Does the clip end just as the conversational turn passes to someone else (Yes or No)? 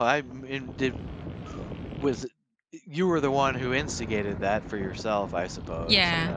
Yes